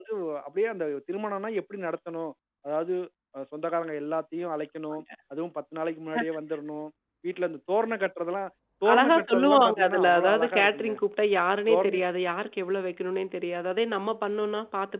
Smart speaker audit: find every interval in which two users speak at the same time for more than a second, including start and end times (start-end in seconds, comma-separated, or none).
8.9-10.9